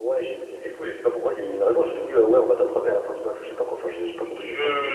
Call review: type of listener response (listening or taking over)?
taking over